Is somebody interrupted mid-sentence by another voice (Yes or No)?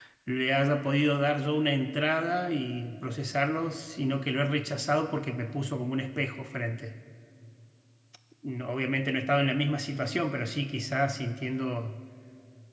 No